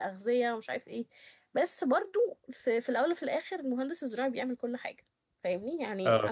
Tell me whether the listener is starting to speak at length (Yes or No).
No